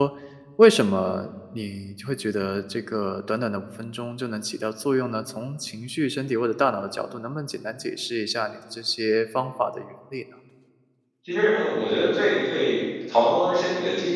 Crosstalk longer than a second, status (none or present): none